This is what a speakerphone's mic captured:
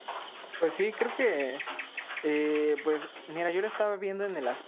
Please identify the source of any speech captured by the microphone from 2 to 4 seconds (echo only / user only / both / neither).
user only